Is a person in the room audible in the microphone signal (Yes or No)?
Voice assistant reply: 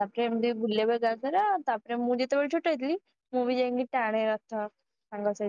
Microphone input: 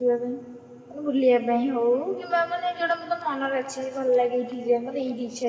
Yes